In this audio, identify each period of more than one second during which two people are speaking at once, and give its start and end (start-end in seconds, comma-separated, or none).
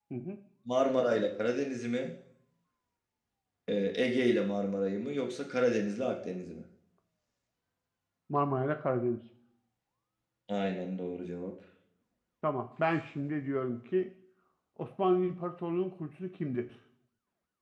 none